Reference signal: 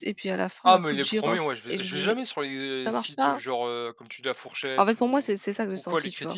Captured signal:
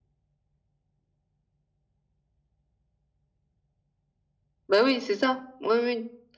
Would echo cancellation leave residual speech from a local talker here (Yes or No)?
Yes